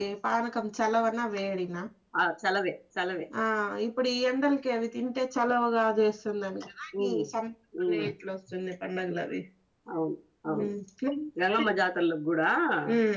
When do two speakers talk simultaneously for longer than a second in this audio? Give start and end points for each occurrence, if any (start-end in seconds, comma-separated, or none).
none